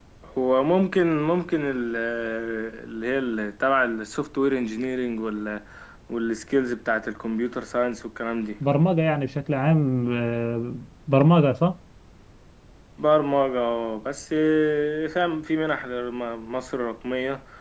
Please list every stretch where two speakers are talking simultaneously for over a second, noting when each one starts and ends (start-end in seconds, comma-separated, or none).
none